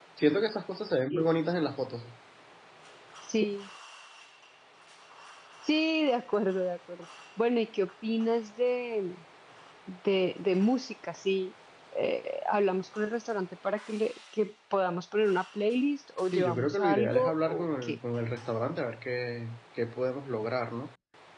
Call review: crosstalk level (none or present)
present